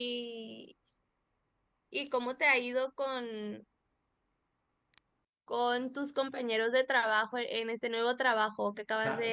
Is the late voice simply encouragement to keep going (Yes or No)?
No